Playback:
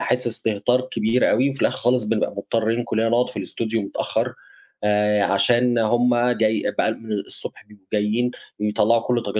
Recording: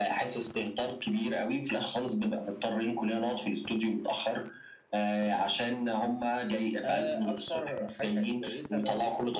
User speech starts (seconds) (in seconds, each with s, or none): 6.8 s